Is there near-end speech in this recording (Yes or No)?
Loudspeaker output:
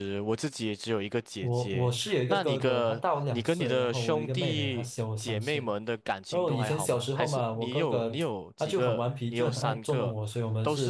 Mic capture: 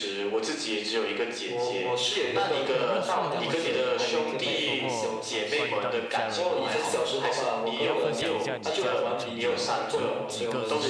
Yes